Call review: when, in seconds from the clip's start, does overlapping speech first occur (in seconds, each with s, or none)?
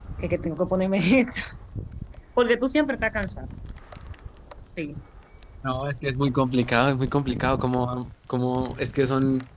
none